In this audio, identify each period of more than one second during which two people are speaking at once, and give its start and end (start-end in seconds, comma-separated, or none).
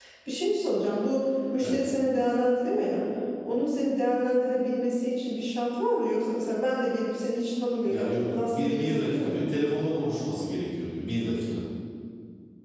7.9-9.5